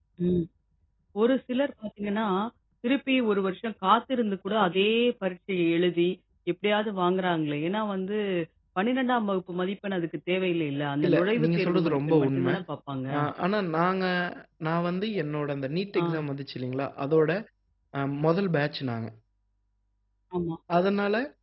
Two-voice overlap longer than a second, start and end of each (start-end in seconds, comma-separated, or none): 11.1-12.5